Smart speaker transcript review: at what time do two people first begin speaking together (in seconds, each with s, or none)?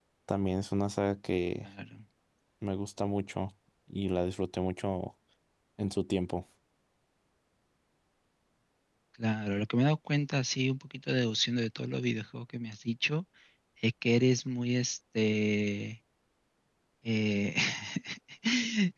none